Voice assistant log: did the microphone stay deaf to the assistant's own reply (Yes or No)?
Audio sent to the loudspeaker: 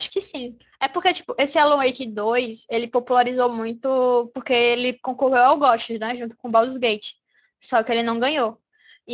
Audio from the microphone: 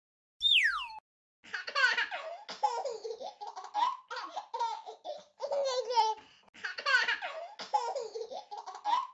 Yes